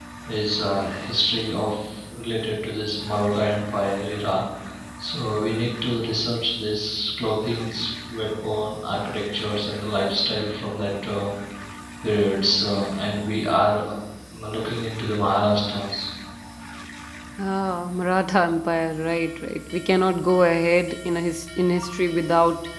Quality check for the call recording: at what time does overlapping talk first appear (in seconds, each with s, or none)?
none